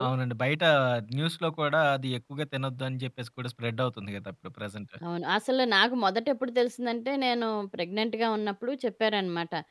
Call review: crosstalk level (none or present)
none